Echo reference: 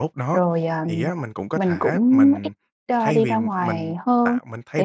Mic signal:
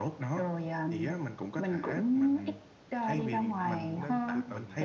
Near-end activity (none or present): present